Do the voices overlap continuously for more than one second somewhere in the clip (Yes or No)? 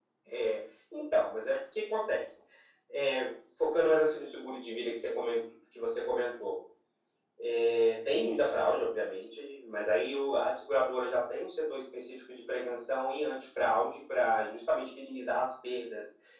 No